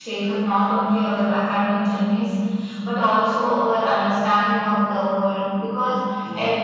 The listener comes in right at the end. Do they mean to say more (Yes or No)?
No